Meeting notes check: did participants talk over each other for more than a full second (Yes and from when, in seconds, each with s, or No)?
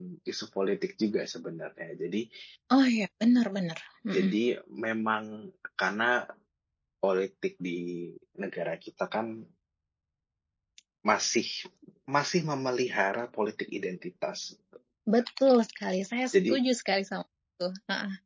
No